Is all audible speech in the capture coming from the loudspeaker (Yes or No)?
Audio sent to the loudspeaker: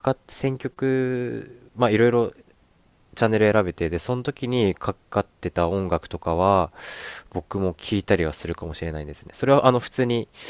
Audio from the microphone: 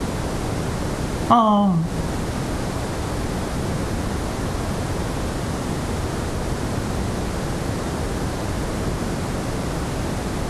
No